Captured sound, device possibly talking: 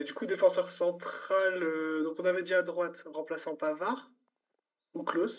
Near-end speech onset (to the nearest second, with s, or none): none